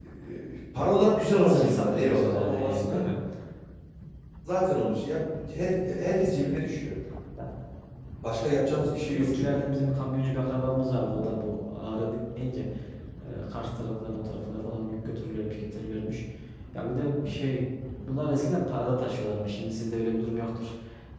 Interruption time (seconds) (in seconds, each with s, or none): 1.3 s